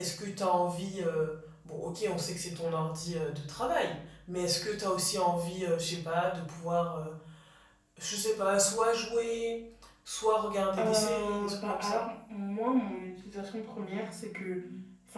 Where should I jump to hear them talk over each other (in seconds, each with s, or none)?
10.8 s